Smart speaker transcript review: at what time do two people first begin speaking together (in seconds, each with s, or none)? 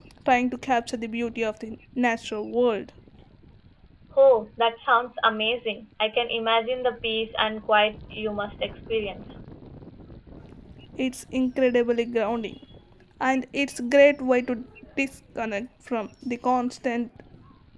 none